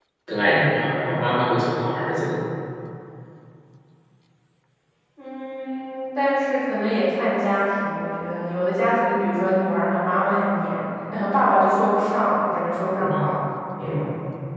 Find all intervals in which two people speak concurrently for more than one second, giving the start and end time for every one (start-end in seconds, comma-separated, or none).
none